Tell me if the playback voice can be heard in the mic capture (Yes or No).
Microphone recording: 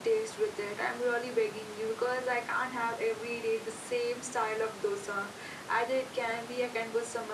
Yes